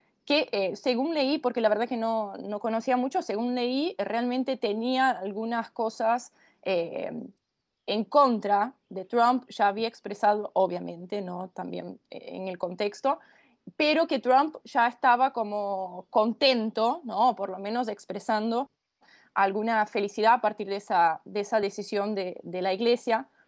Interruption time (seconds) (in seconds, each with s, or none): none